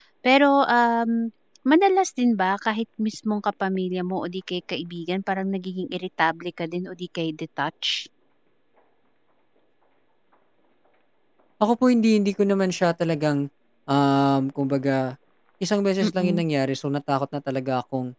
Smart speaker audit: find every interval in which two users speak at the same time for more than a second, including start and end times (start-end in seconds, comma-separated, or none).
none